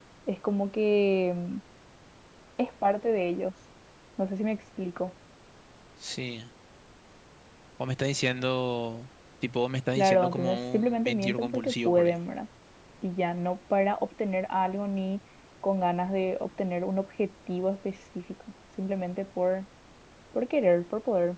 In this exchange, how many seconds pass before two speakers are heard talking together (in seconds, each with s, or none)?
9.9 s